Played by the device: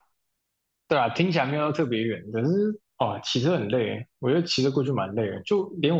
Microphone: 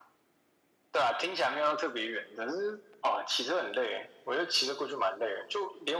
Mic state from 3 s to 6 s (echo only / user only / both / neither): echo only